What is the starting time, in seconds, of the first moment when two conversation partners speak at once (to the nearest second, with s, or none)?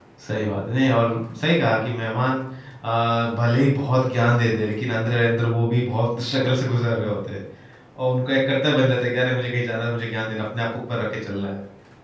none